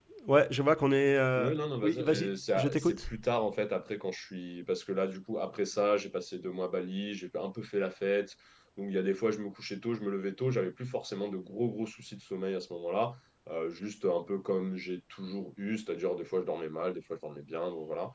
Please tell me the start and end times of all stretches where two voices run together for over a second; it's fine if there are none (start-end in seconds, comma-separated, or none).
1.4-3.1